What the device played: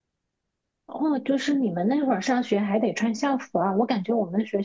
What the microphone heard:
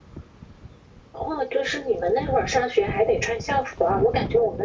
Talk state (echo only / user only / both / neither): echo only